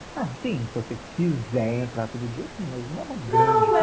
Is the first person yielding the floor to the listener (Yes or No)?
Yes